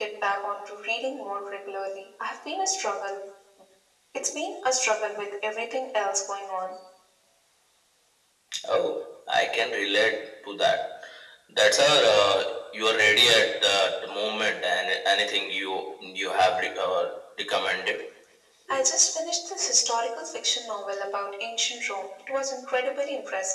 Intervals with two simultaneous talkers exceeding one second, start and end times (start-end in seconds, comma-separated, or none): none